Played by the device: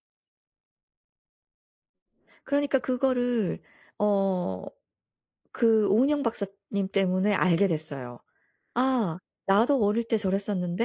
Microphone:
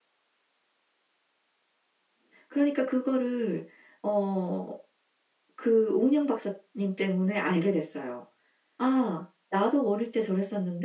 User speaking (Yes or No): No